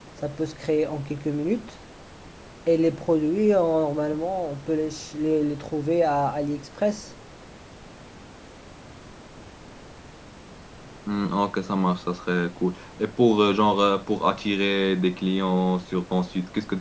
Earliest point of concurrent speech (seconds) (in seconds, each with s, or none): none